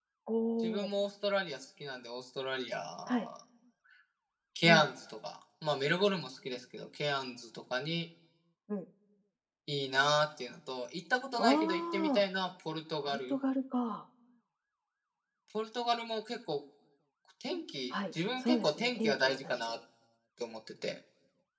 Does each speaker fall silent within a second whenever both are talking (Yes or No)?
No